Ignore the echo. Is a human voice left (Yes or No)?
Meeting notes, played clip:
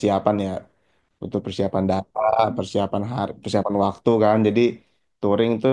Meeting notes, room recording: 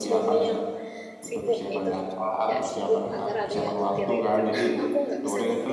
Yes